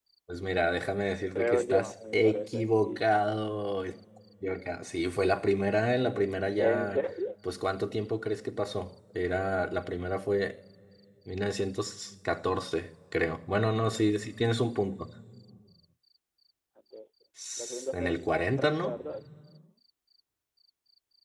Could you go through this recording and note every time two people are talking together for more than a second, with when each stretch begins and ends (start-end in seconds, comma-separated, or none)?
1.4-3.0, 17.6-18.9